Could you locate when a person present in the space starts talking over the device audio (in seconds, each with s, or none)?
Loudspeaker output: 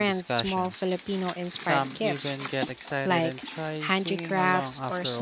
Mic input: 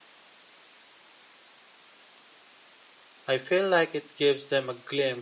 3.3 s